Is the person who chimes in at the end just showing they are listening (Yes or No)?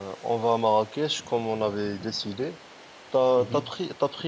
Yes